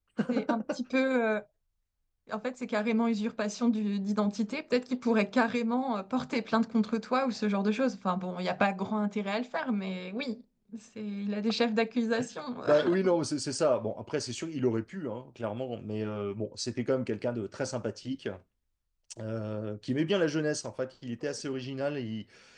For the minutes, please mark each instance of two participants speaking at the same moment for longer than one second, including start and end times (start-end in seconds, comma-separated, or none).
none